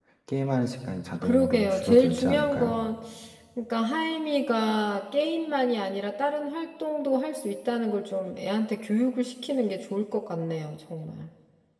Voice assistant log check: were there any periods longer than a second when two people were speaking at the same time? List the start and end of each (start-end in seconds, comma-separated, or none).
1.2-2.7